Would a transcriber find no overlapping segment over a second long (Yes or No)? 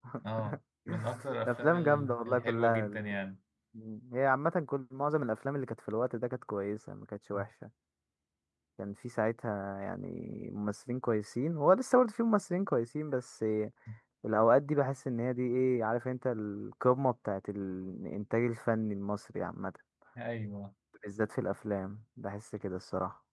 No